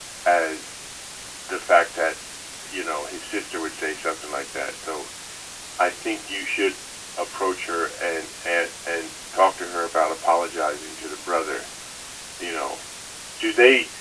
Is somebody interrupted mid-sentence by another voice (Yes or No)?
No